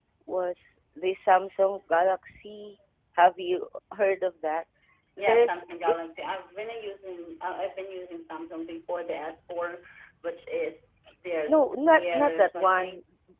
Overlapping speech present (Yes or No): Yes